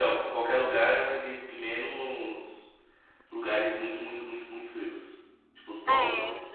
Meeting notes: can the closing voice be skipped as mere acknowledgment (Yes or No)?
No